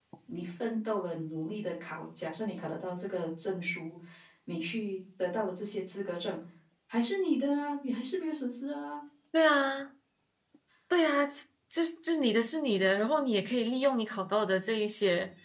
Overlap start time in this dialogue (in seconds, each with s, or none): none